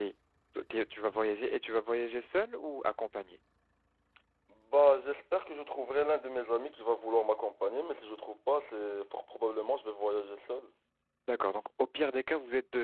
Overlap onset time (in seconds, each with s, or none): none